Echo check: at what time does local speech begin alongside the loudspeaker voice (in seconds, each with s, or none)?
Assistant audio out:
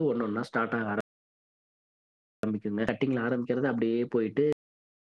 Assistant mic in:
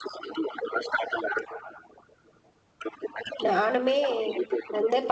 3.5 s